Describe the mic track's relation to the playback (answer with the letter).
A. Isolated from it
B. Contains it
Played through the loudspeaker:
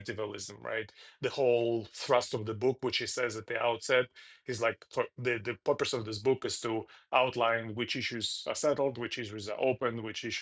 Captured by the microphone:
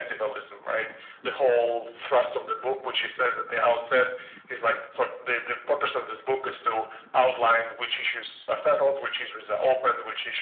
B